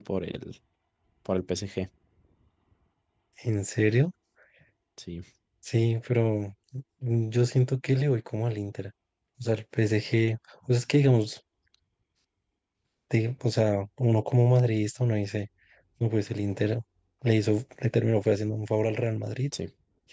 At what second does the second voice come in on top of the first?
none

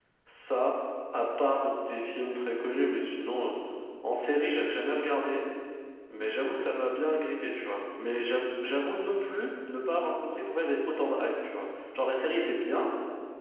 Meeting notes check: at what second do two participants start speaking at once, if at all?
none

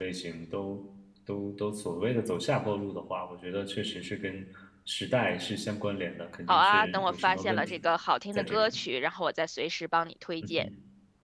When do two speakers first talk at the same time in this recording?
6.5 s

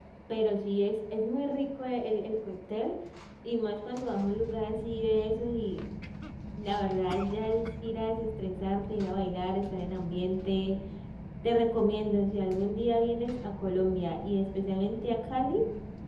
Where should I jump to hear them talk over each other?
none

